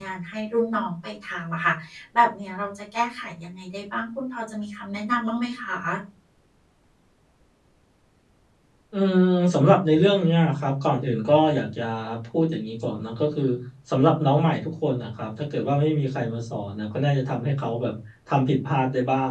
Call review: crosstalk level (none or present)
none